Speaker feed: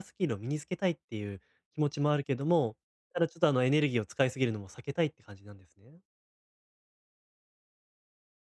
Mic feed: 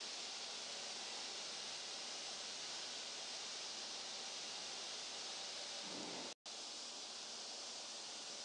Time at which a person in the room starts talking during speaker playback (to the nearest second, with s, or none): none